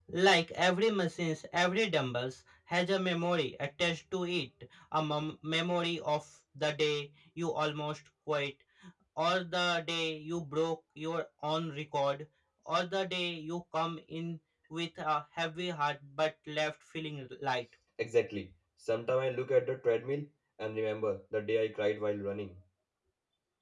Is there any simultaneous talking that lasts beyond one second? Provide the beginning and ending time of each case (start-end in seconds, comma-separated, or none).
none